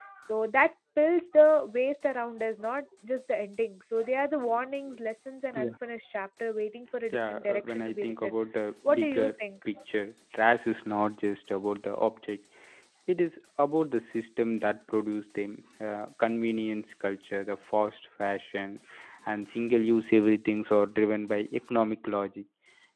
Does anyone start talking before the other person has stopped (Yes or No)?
Yes